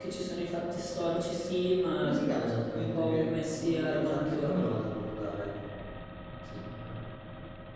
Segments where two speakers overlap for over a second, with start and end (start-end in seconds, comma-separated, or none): 2.7-4.8